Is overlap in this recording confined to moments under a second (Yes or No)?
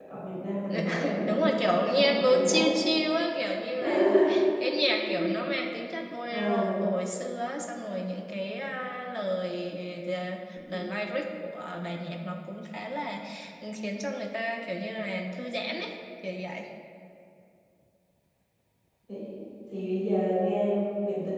No